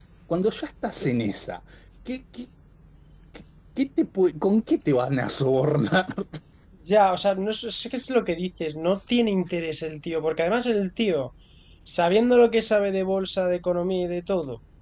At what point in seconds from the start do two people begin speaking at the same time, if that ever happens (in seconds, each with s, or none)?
none